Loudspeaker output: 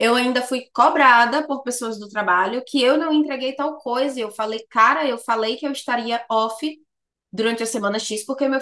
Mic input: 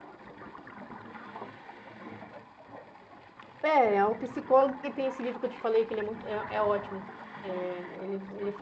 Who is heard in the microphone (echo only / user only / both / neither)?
user only